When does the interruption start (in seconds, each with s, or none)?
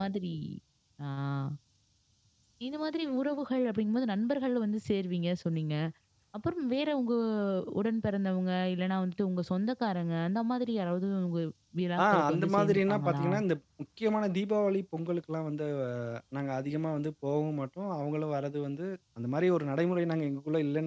12.0 s